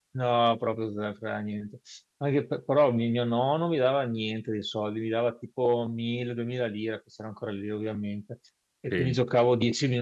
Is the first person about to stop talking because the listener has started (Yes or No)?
No